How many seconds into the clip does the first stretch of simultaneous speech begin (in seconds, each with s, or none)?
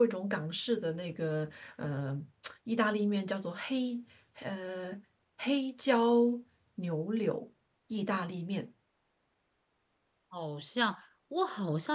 none